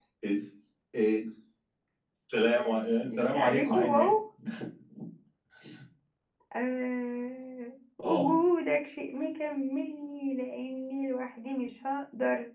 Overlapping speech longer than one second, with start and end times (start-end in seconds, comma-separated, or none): 2.5-4.1